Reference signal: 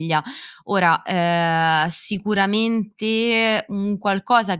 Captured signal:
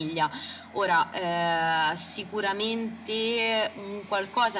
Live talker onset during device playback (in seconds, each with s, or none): none